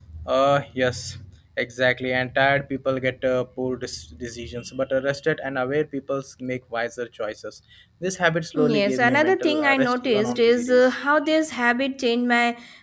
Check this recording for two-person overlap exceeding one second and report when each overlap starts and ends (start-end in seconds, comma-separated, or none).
8.6-10.9